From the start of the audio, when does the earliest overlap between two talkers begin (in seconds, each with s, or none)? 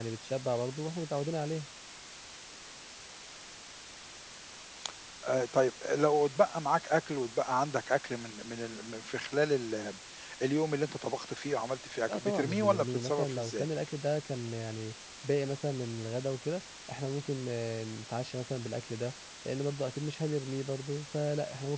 12.1 s